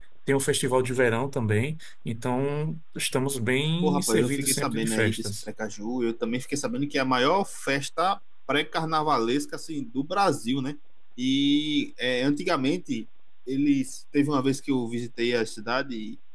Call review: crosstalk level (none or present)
present